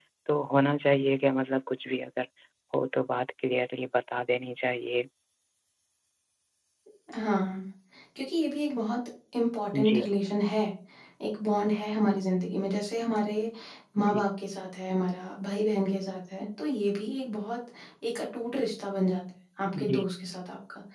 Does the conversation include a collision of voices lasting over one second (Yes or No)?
No